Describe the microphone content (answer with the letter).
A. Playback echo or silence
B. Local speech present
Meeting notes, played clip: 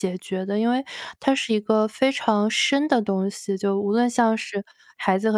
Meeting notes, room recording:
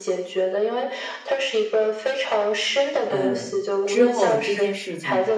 B